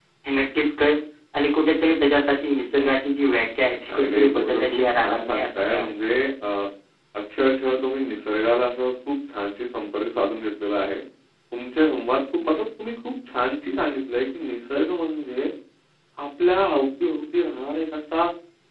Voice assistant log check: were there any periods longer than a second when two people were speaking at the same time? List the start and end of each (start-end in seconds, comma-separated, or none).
3.9-5.9